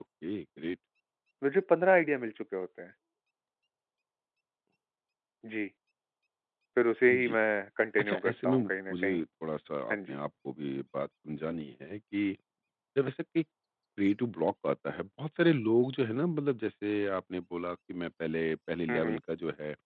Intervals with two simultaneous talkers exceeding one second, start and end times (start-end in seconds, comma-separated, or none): 8.0-9.2